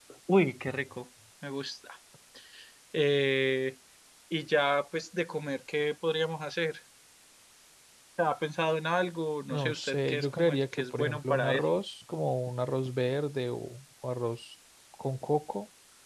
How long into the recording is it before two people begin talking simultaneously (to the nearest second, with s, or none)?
10 s